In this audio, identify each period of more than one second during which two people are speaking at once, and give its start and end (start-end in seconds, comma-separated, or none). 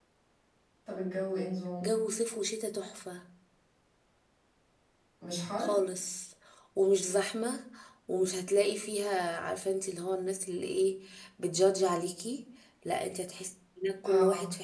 none